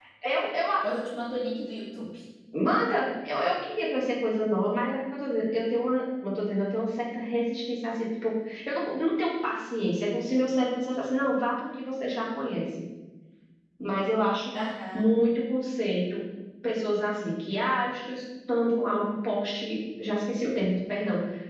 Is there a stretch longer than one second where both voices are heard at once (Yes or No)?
No